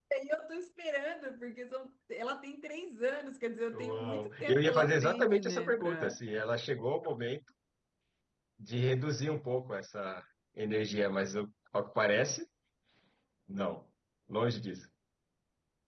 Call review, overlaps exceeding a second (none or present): present